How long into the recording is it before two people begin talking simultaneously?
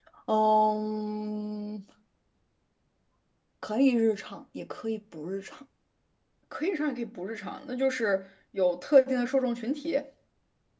none

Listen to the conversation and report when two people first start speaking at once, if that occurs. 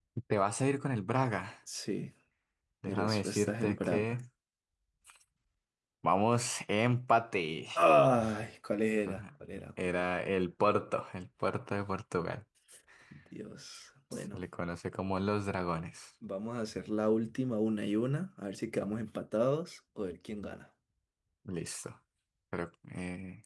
2.9 s

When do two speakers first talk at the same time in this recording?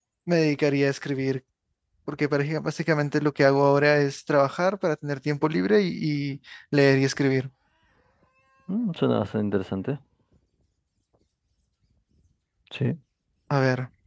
none

